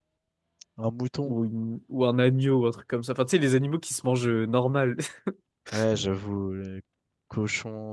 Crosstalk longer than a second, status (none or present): none